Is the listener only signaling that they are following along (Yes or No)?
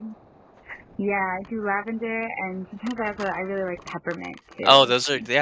No